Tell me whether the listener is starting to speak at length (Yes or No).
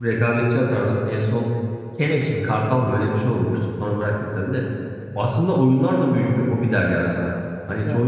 No